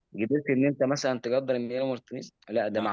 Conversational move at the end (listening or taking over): listening